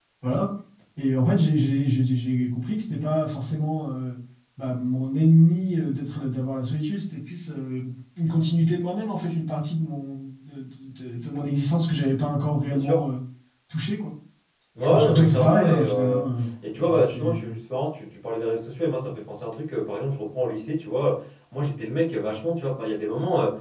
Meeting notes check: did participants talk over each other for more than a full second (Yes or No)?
Yes